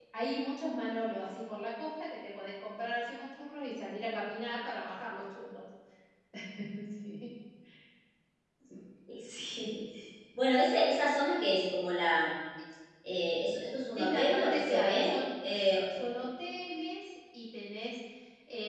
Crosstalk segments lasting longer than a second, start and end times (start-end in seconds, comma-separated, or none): 14.0-15.2